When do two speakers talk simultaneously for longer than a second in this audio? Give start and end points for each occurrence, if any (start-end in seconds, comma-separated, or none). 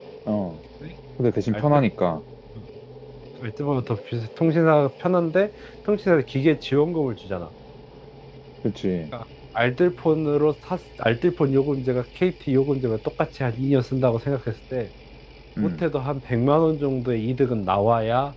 none